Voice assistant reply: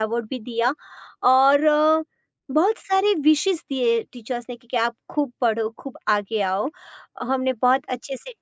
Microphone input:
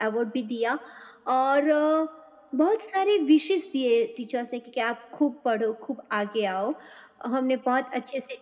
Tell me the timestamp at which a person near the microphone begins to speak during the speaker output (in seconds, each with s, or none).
none